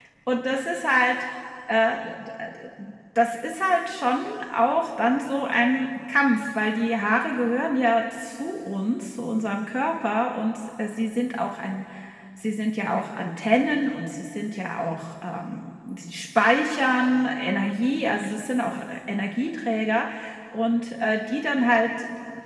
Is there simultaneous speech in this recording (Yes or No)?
No